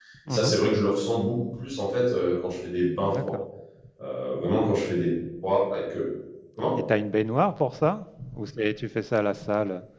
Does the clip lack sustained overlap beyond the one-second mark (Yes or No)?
Yes